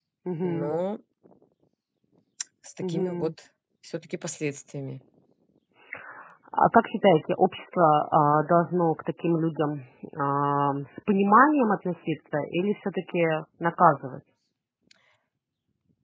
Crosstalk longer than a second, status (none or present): none